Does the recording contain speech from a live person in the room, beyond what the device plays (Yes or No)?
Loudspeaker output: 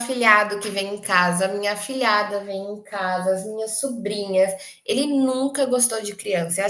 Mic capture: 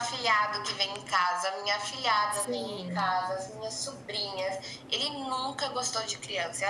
Yes